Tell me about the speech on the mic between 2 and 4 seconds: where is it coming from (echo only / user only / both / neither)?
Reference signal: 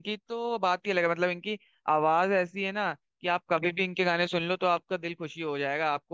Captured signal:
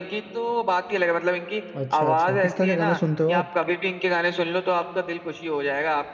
both